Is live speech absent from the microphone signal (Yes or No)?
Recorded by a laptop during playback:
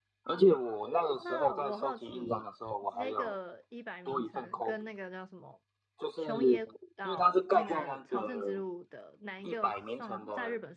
No